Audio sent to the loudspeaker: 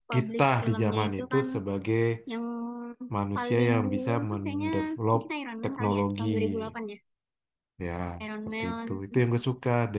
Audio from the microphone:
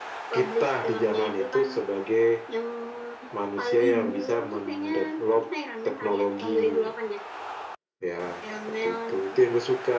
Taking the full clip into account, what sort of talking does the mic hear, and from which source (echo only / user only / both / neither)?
both